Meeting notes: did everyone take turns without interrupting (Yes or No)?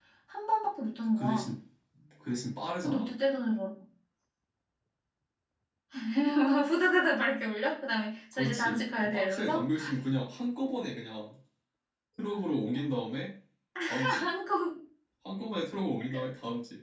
No